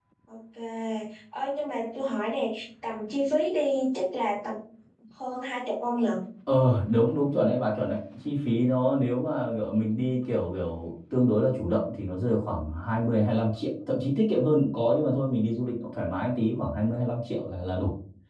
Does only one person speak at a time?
Yes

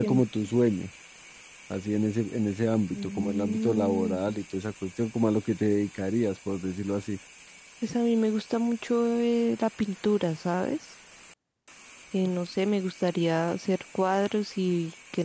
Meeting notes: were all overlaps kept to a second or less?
No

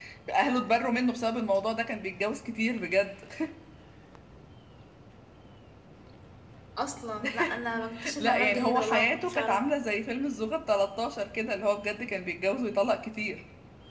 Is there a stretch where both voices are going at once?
Yes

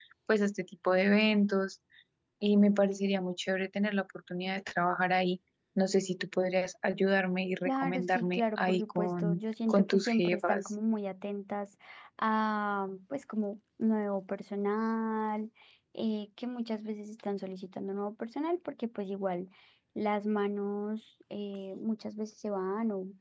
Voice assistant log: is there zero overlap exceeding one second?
No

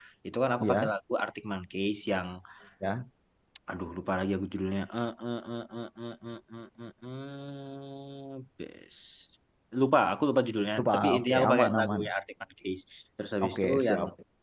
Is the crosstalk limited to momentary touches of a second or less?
No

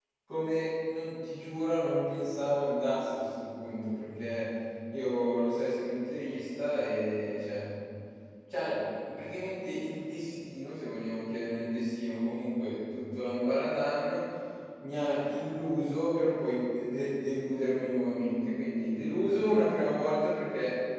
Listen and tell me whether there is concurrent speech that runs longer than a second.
No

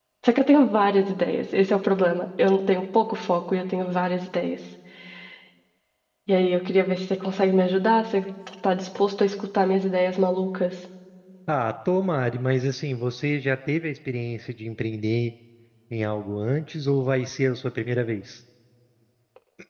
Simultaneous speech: No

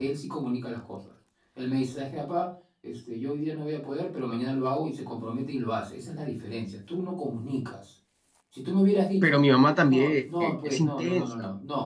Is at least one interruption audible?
Yes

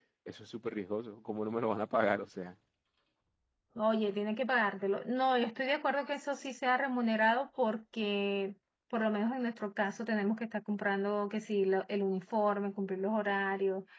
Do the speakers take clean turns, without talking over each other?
Yes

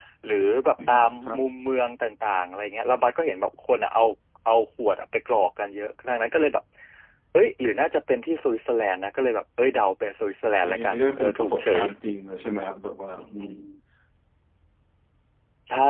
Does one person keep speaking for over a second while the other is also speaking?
Yes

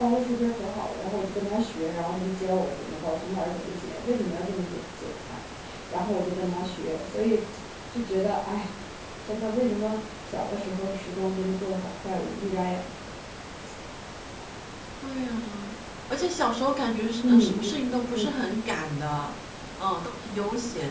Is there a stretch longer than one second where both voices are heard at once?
No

